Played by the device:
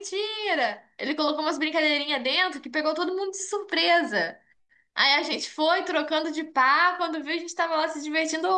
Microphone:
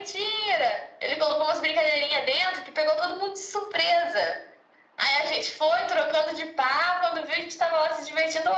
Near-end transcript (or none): none